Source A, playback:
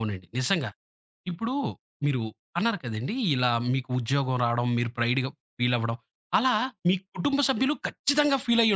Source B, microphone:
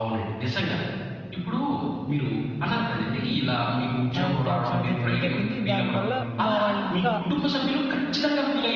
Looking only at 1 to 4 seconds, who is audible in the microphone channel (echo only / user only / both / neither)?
echo only